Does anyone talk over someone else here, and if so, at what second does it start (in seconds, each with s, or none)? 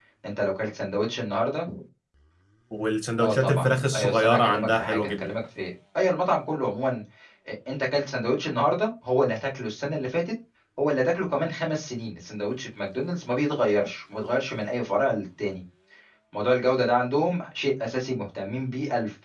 3.2 s